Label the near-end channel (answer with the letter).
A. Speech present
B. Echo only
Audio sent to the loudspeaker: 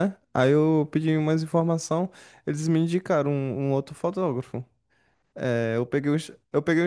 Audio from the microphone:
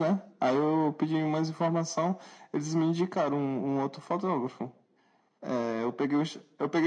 B